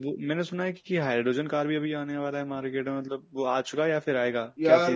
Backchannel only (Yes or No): No